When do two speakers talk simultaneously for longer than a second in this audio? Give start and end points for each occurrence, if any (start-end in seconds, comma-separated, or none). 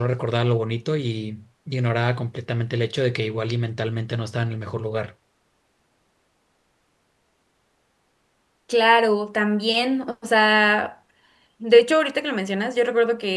none